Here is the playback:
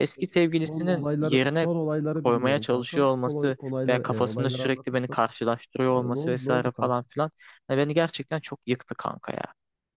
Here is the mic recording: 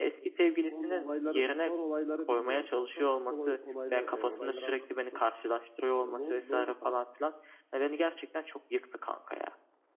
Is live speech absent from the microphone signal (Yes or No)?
Yes